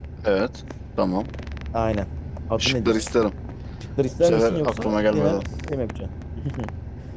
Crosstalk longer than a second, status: present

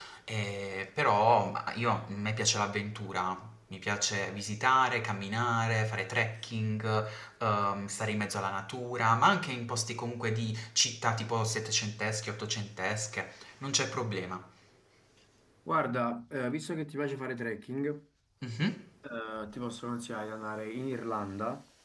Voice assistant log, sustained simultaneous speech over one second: none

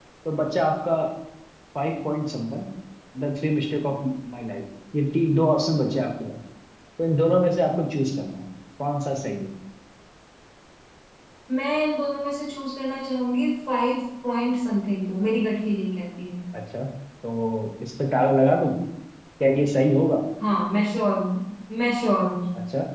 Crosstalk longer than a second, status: none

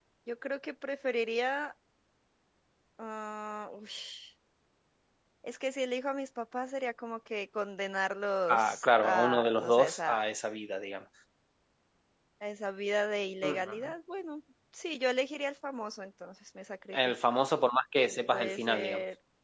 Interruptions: present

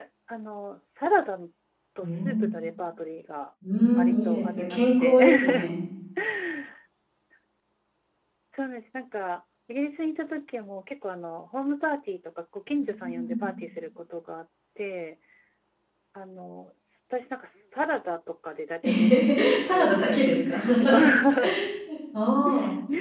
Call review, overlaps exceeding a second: present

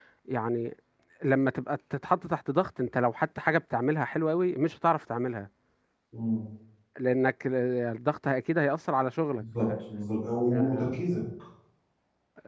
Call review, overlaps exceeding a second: none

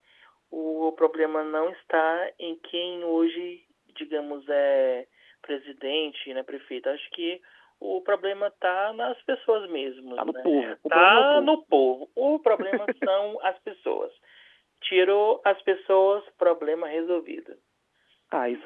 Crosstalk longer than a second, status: present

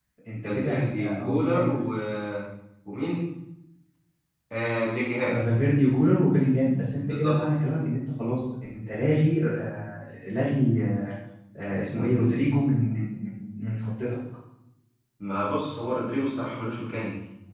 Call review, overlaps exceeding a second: present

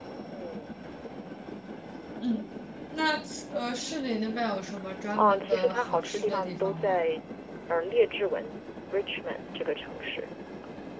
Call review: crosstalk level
present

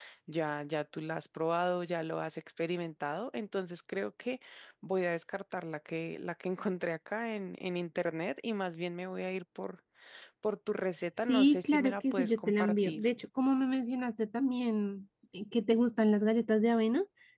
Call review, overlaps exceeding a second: present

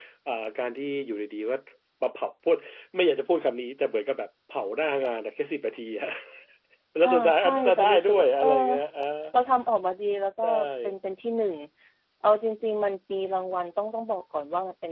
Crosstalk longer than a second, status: present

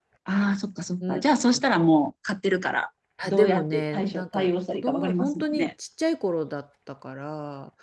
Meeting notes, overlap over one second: present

